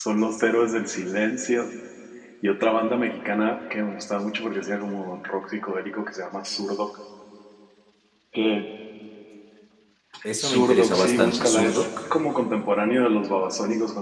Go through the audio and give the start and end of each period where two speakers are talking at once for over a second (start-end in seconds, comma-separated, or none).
10.4-11.9